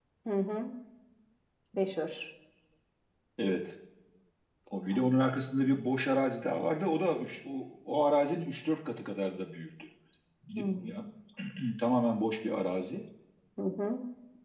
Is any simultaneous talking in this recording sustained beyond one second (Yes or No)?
No